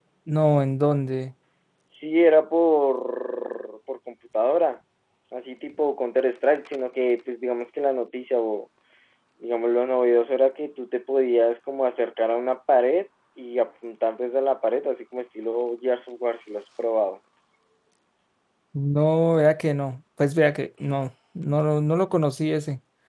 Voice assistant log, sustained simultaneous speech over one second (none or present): none